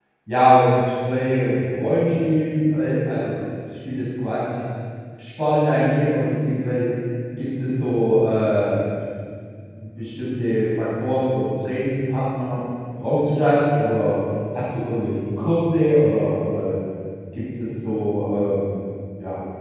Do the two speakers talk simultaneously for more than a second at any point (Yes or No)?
No